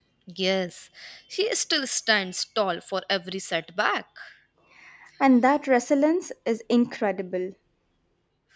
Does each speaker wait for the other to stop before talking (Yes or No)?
Yes